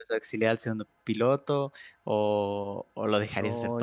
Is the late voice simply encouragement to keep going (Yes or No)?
No